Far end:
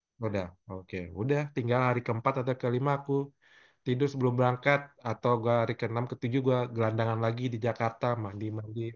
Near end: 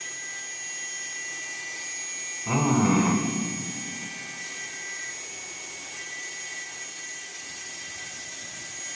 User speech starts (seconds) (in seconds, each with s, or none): 2.5 s